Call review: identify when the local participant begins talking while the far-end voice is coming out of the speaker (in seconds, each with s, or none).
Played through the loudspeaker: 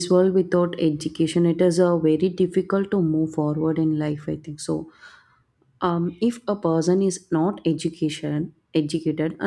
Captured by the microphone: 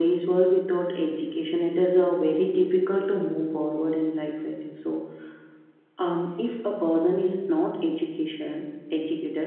none